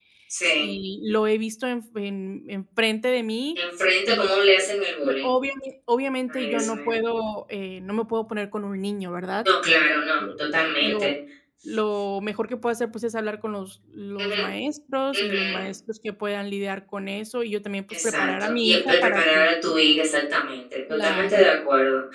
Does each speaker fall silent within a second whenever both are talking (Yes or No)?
No